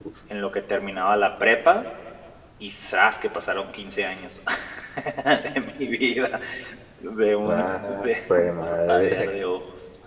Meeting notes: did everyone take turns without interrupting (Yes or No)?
No